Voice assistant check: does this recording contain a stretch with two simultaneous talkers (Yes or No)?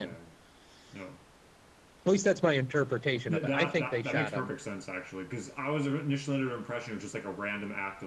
Yes